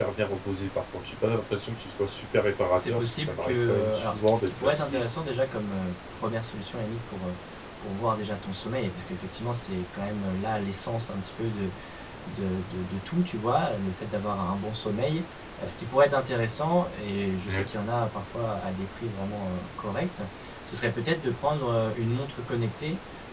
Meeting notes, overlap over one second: present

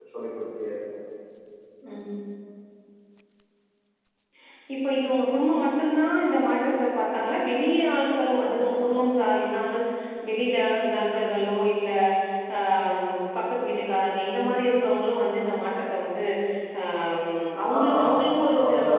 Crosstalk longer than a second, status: present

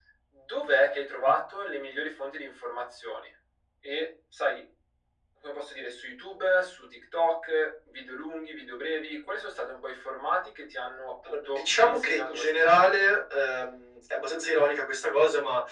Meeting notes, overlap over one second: present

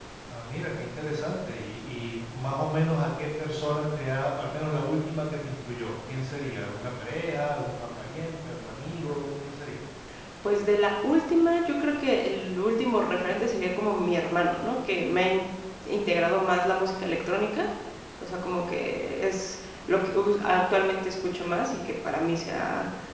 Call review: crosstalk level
none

